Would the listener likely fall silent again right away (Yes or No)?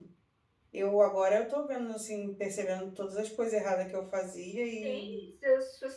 No